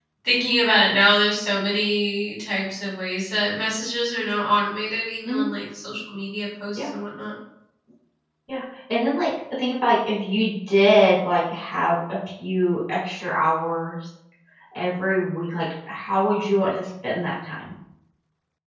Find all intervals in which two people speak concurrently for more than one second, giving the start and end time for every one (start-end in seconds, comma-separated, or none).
none